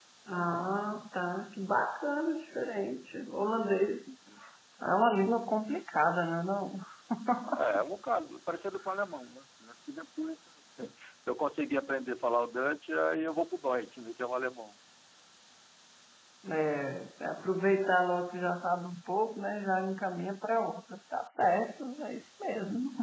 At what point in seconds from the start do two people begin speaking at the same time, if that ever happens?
none

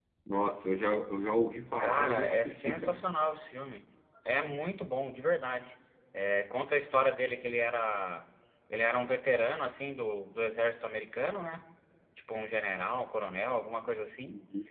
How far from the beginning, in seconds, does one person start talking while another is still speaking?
1.8 s

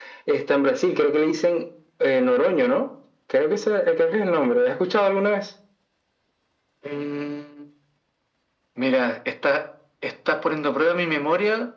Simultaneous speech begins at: none

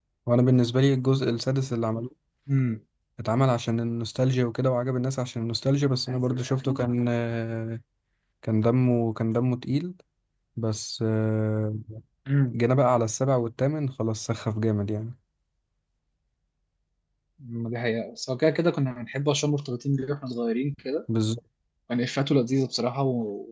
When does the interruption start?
none

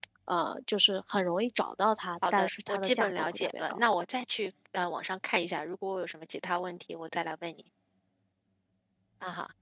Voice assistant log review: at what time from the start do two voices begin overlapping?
2.2 s

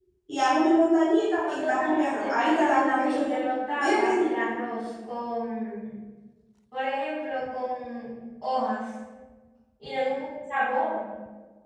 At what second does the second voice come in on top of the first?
1.4 s

